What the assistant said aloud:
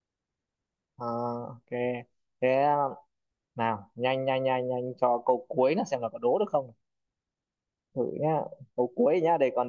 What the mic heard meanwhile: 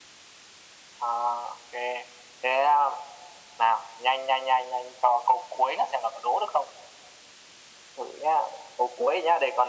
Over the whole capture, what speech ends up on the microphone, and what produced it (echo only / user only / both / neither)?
echo only